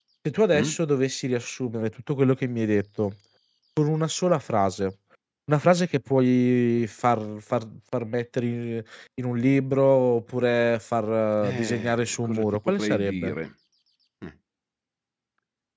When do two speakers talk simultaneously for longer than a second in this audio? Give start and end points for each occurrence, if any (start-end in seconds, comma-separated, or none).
11.4-13.3